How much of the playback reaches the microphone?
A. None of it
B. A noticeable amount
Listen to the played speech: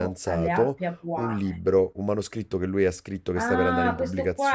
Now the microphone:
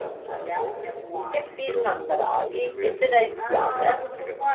B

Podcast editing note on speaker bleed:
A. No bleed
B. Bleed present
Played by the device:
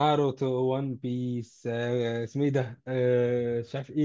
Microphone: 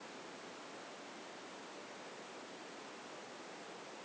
A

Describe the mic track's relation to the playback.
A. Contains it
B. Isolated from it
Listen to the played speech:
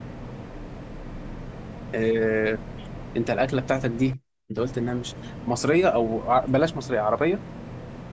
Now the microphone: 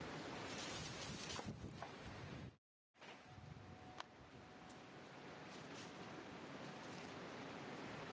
B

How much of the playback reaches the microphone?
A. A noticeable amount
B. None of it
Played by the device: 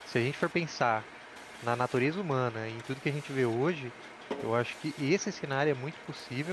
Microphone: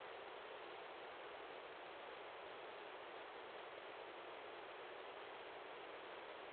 B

